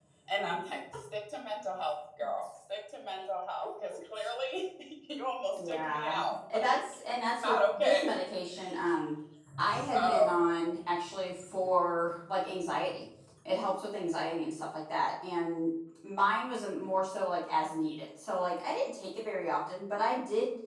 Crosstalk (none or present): present